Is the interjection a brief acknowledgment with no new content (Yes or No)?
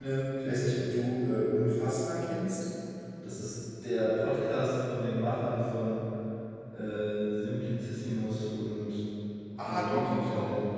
No